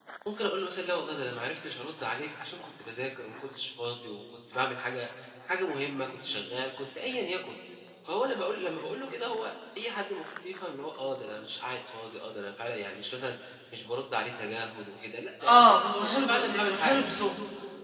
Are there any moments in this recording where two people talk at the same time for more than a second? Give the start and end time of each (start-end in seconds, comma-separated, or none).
15.6-17.1